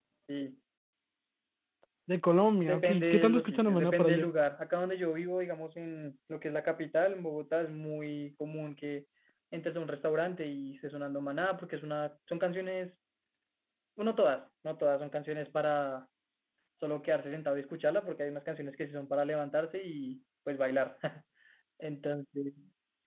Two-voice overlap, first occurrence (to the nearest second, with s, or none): 3 s